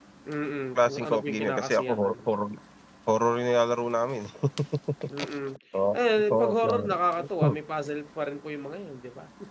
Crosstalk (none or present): present